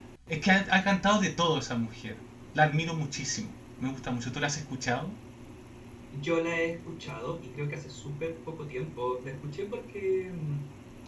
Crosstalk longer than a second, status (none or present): none